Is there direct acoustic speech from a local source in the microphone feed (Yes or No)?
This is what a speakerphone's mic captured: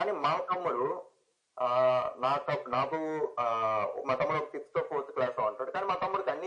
No